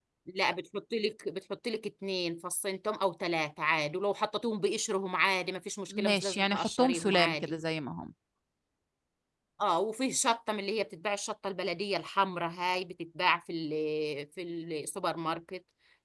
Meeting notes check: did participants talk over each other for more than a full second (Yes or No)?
Yes